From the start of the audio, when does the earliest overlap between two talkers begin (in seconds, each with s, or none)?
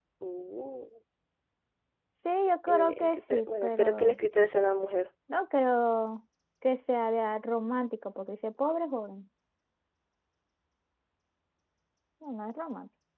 2.7 s